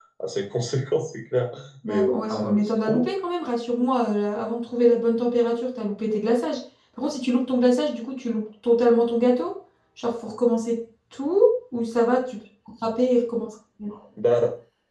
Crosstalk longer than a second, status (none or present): present